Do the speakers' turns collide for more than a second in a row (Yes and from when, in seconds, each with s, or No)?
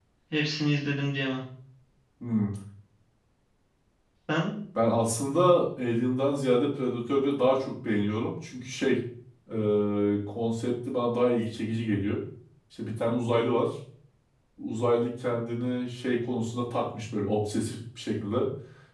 No